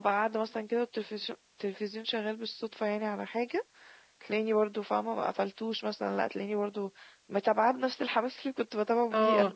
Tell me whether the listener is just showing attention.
No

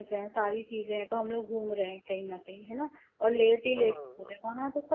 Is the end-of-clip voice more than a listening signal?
No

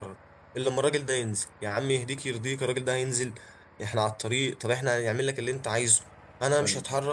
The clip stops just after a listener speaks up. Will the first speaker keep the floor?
Yes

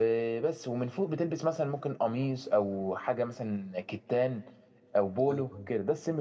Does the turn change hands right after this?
No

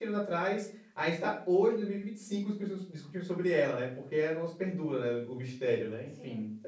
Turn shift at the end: Yes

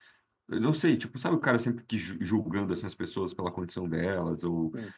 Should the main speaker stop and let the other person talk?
No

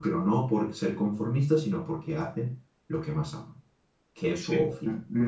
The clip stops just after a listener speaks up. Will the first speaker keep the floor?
No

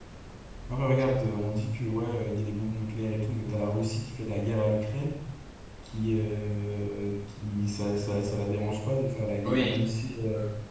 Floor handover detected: No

